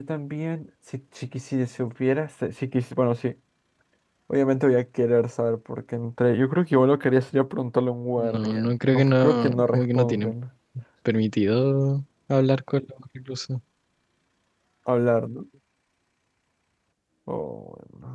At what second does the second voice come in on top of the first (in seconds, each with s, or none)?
8.2 s